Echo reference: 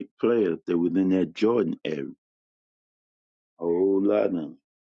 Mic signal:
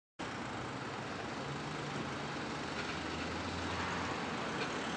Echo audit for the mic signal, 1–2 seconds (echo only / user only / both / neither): neither